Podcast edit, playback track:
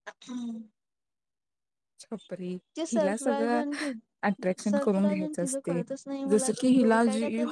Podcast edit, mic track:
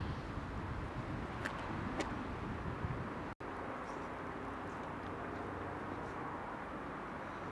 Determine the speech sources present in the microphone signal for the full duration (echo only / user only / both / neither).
neither